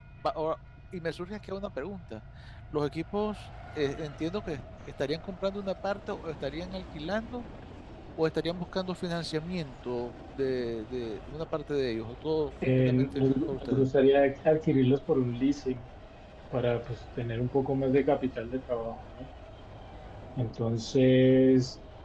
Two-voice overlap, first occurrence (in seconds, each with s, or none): 12.6 s